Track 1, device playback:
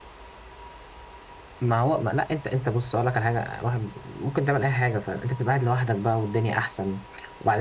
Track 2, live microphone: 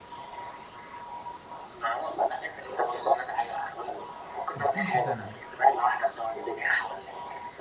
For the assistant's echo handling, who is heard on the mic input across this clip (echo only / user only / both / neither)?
both